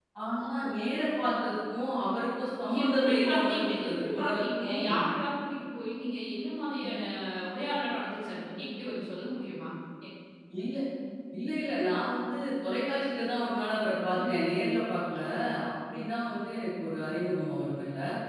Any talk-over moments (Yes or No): Yes